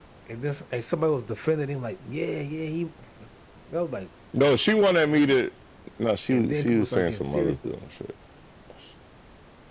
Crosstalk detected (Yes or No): Yes